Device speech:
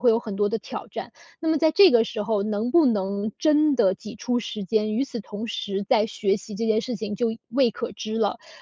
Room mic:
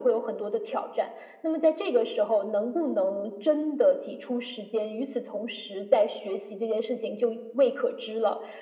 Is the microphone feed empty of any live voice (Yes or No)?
Yes